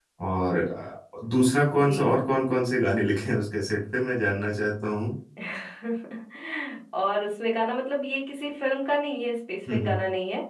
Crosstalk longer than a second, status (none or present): none